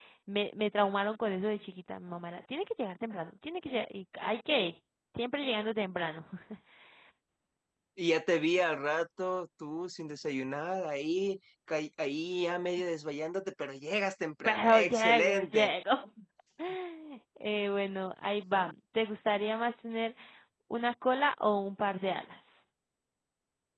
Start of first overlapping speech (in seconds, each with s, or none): 14.4 s